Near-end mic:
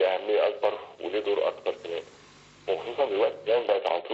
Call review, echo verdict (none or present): present